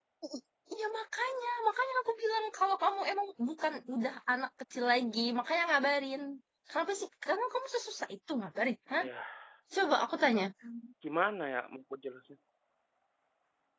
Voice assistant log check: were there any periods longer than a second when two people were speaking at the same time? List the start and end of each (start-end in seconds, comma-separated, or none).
none